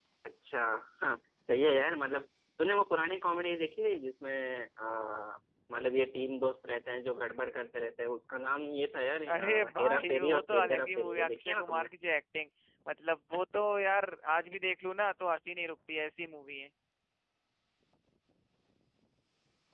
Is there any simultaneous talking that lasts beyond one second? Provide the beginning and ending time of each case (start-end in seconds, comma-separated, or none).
9.3-11.9